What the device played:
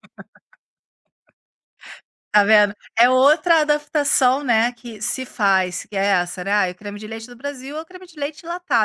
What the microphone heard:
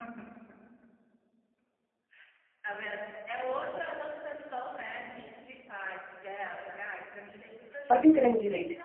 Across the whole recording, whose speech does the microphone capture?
both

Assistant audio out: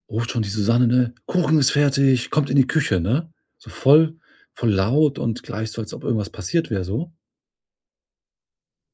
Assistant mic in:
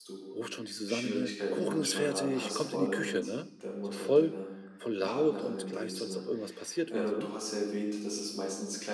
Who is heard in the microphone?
both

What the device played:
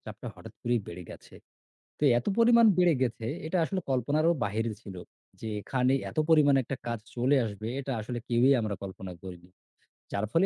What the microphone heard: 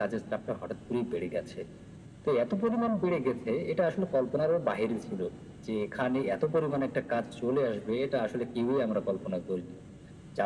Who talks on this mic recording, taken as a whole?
echo only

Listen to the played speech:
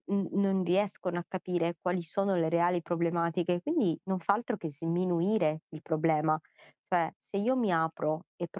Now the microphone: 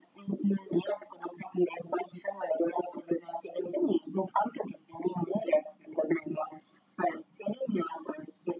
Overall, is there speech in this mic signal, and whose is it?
echo only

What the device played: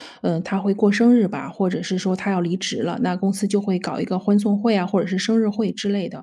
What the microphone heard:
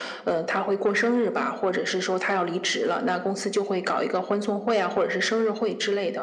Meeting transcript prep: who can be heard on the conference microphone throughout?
echo only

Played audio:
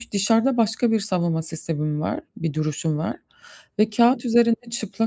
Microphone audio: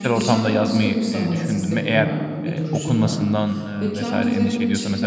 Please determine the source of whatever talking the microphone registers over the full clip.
both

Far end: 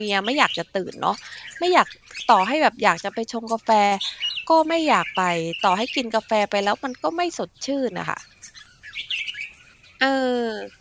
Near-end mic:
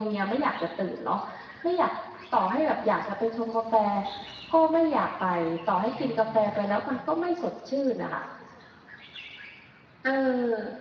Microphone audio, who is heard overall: both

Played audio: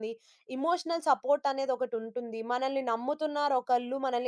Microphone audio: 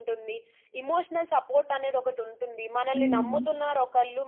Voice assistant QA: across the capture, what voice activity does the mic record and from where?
both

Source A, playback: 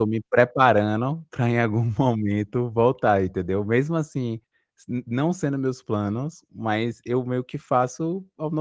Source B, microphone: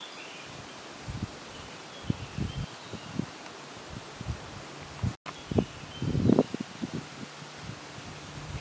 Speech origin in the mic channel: neither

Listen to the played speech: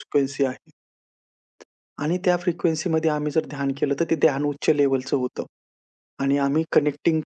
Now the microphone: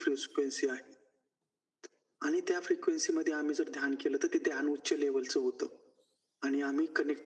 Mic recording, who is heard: echo only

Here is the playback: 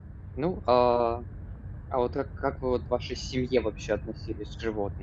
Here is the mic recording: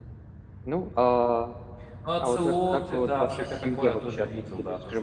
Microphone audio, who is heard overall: both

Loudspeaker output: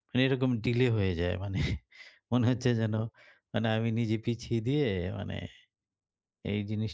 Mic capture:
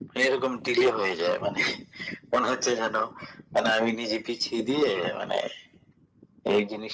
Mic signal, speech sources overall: echo only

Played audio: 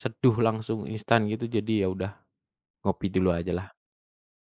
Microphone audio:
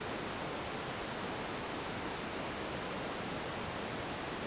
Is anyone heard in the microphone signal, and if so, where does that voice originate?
neither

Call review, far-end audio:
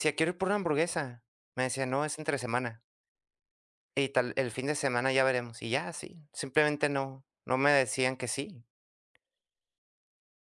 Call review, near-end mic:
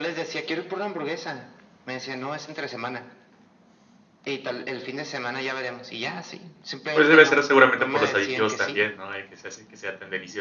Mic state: both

